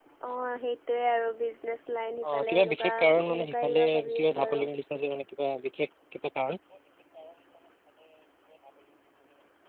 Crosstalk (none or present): present